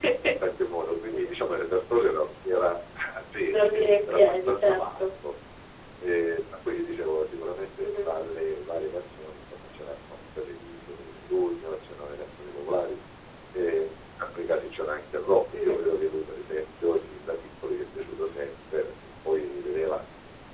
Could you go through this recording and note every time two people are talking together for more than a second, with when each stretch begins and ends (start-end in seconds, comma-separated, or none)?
3.4-5.1